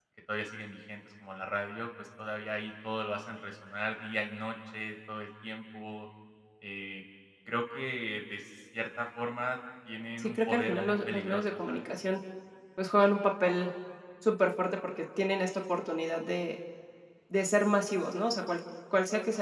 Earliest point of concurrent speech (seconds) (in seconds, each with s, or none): 10.2 s